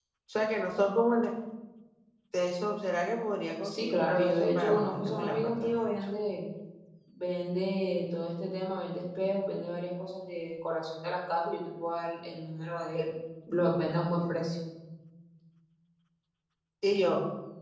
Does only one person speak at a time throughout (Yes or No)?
No